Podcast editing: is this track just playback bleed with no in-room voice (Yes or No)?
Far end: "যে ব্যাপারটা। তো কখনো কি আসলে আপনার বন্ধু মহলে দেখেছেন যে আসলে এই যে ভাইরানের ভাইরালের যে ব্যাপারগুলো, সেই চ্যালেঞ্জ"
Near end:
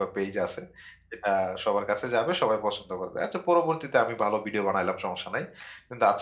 No